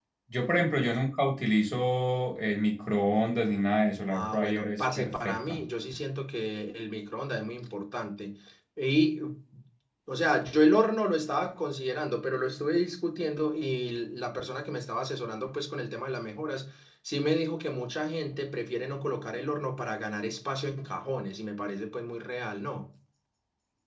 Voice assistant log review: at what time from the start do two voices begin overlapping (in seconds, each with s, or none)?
4.1 s